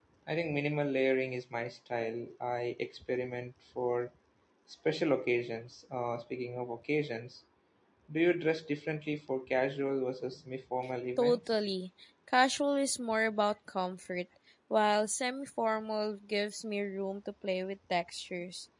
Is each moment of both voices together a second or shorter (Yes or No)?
Yes